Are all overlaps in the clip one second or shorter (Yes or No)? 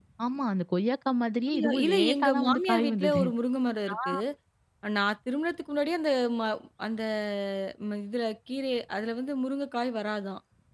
No